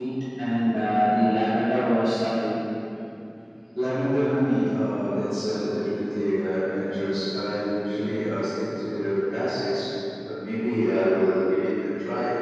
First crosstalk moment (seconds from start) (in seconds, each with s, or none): none